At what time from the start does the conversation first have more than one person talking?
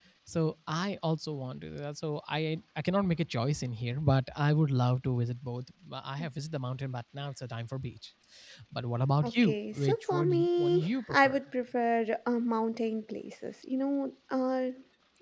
9.2 s

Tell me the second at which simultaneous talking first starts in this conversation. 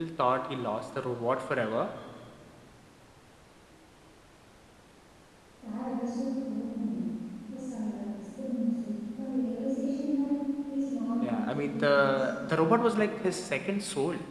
11.2 s

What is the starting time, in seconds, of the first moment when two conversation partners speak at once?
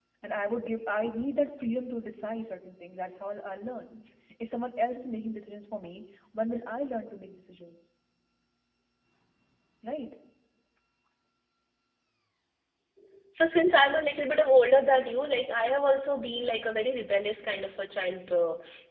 none

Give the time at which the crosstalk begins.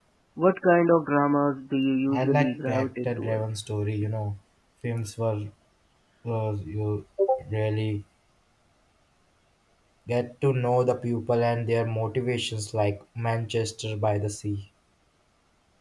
2.1 s

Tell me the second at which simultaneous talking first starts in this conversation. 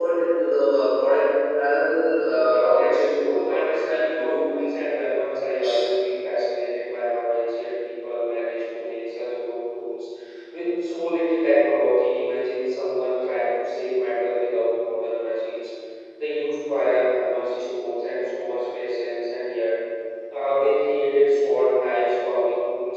2.4 s

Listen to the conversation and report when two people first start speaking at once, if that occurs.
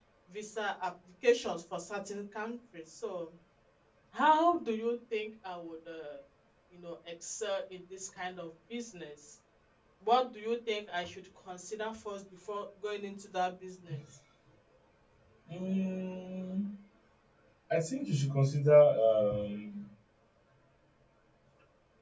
none

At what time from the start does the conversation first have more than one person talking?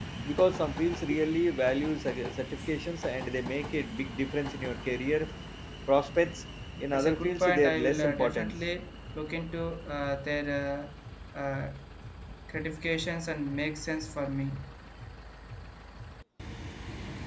6.9 s

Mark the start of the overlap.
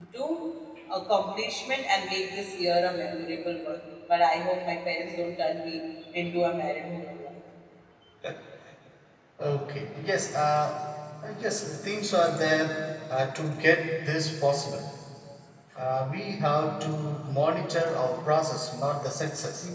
none

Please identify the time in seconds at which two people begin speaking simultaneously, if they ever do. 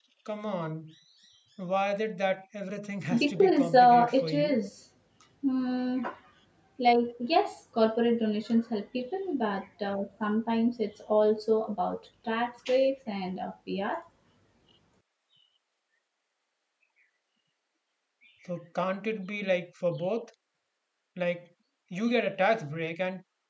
3.1 s

